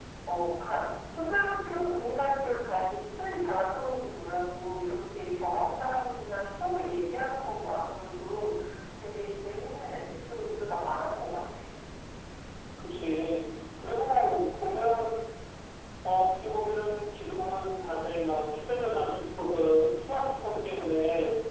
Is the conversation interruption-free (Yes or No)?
Yes